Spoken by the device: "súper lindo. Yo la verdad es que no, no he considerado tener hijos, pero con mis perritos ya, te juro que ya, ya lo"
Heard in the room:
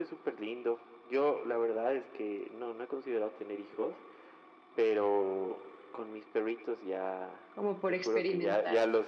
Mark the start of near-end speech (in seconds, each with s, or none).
7.5 s